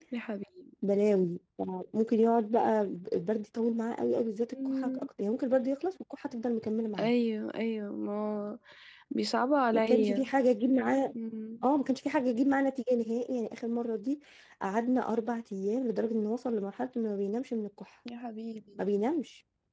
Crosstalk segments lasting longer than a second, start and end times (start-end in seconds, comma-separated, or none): none